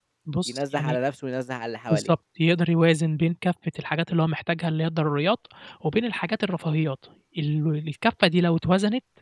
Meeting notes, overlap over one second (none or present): none